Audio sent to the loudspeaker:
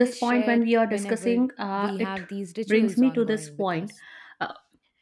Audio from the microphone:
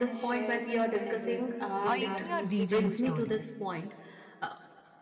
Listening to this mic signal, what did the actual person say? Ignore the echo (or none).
or even your region stories